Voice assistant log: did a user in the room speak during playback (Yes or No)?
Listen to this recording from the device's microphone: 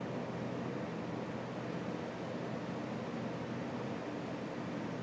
No